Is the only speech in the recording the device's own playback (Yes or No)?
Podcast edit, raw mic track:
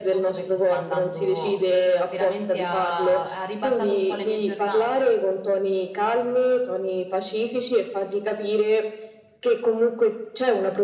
Yes